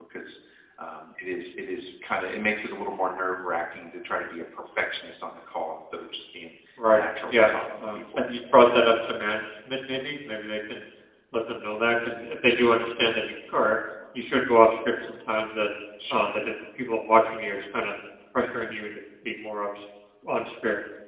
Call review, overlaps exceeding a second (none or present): present